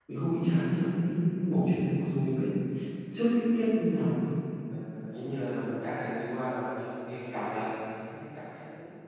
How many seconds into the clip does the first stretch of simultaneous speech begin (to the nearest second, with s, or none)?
none